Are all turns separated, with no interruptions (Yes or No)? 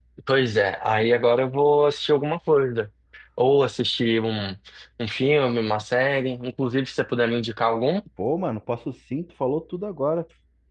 Yes